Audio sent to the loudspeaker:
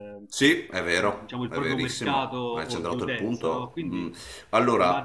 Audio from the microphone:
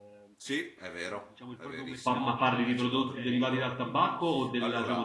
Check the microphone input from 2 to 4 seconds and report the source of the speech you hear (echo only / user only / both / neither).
both